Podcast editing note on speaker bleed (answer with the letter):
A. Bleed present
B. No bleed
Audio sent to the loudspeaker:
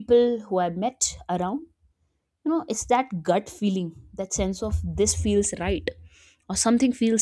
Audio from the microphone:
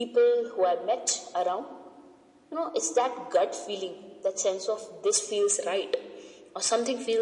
A